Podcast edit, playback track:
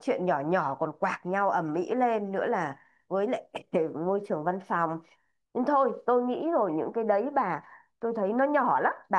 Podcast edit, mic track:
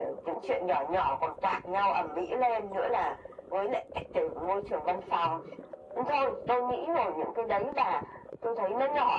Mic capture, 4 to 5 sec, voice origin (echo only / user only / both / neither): echo only